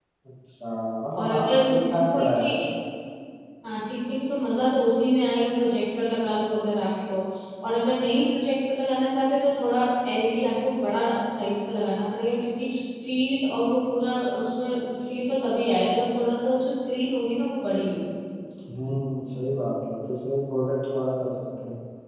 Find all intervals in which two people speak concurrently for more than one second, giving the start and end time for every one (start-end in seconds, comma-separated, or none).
1.2-2.6